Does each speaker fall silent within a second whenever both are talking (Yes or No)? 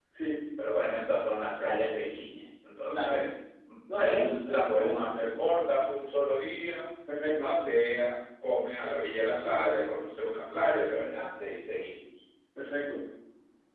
No